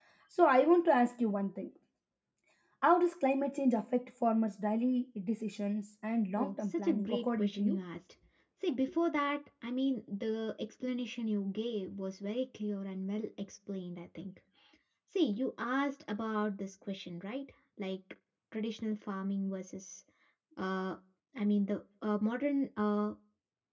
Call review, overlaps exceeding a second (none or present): present